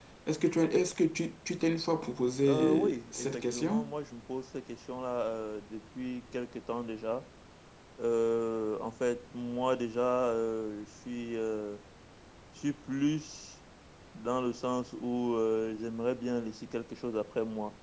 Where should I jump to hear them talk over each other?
2.4 s

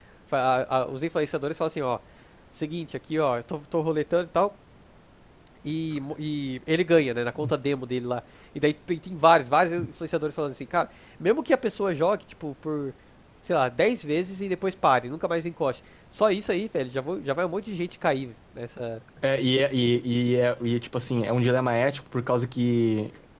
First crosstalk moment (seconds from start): none

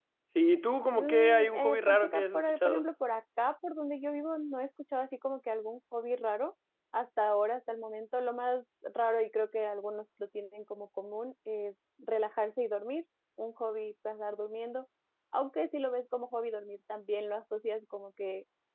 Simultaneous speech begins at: 0.9 s

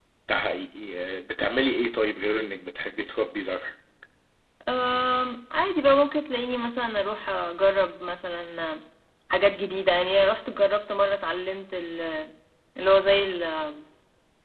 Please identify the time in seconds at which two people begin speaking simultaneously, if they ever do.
none

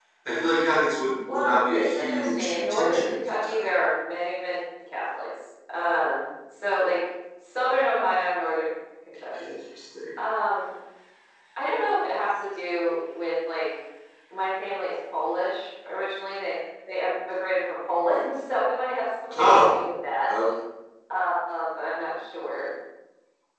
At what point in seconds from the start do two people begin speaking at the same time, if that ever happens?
1.3 s

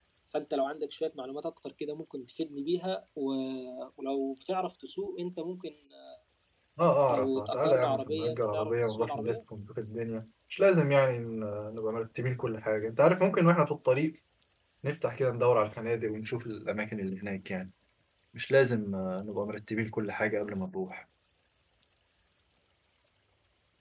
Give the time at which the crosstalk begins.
7.1 s

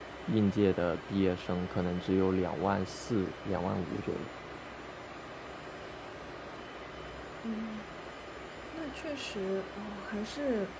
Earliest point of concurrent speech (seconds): none

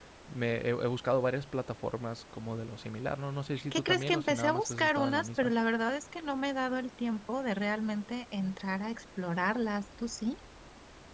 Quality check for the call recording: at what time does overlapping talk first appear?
3.7 s

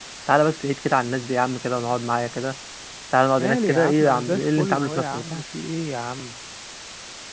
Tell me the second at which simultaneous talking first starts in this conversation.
3.4 s

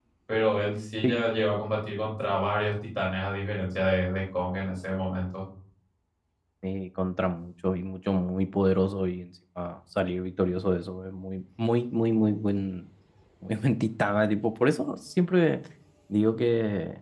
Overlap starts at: none

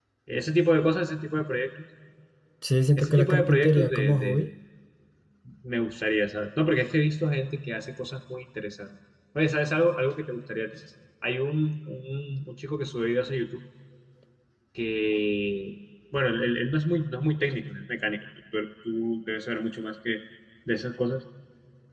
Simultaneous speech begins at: 3.0 s

